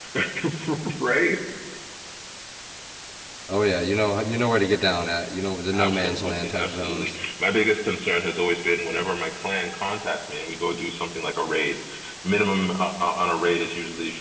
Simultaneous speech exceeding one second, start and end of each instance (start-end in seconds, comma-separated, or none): 5.7-7.2